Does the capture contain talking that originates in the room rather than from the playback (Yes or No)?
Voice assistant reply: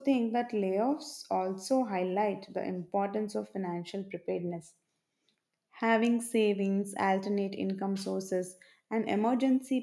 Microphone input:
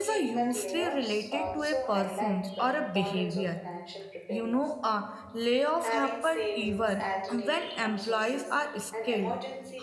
Yes